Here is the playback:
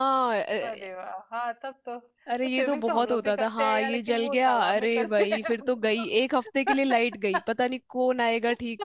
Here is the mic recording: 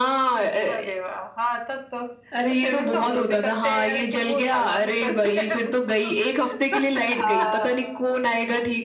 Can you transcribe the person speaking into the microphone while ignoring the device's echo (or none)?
हाँ